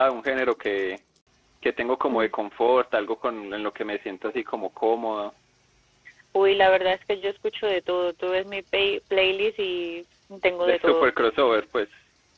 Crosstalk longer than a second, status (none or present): none